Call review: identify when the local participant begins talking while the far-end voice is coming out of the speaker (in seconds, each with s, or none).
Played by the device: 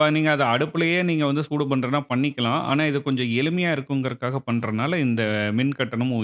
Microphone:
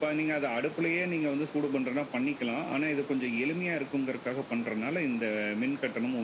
none